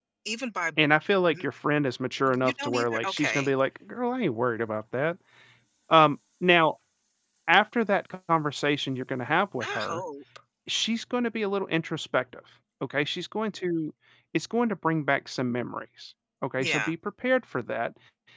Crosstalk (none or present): present